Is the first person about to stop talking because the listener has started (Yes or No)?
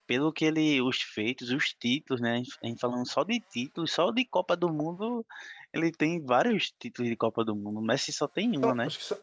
Yes